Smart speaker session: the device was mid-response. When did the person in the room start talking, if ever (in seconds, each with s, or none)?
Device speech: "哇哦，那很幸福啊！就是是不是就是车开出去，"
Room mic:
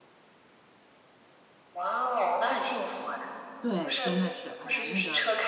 3.6 s